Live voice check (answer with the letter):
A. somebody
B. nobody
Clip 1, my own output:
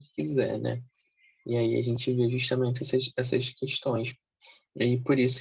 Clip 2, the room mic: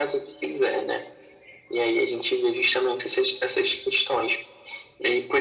B